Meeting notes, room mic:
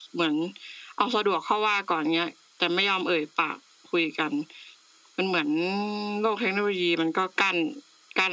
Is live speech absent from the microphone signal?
Yes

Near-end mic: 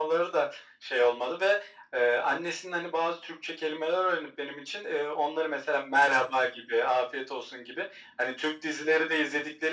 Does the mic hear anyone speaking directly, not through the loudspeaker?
No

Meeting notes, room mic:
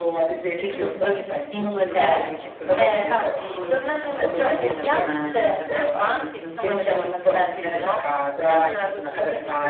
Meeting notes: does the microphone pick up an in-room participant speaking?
Yes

